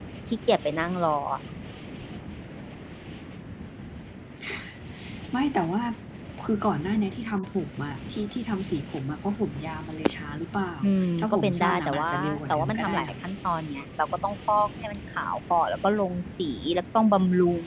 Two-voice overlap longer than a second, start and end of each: 11.2-13.1

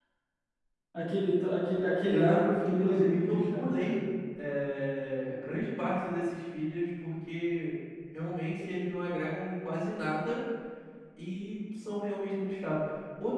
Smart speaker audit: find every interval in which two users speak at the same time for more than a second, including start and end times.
2.1-4.0

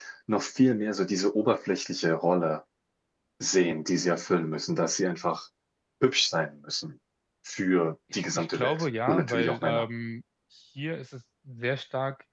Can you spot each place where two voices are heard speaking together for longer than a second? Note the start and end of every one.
8.1-9.9

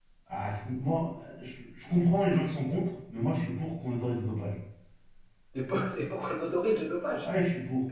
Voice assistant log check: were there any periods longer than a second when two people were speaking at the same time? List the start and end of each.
none

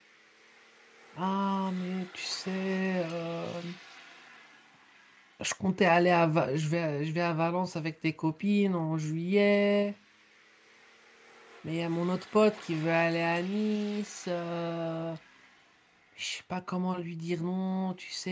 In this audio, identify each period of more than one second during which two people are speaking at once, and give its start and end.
none

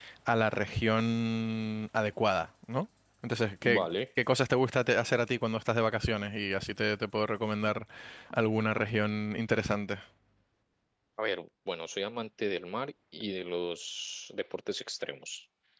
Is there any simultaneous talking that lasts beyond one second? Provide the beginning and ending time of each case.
none

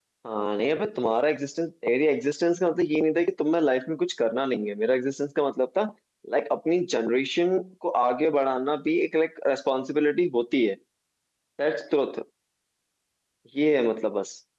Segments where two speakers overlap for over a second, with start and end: none

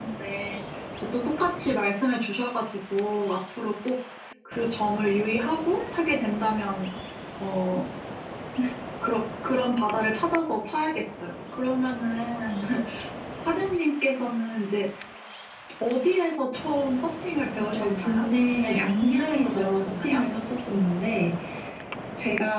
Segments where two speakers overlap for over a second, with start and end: 17.6-20.2

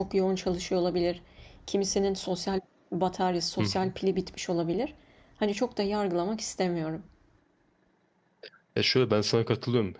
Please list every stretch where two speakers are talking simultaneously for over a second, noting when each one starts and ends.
none

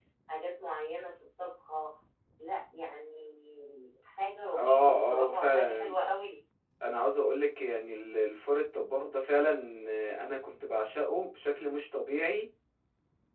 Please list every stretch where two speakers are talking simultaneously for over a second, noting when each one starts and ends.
4.5-6.0

